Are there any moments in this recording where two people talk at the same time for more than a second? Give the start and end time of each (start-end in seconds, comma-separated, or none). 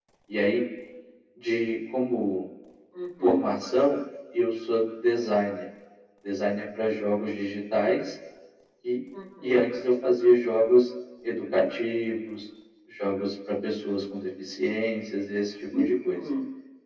none